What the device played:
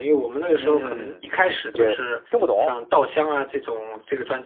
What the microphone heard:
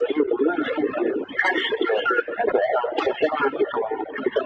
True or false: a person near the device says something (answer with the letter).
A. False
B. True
A